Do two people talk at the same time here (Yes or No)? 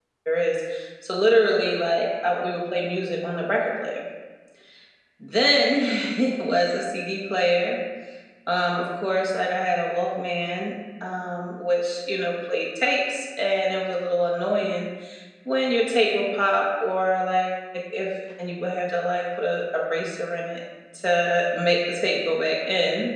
No